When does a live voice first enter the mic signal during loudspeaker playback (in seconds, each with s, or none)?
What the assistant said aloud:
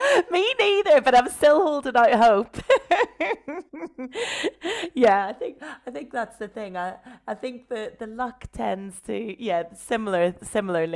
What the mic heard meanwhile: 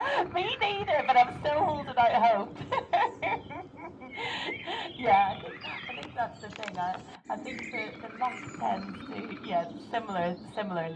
none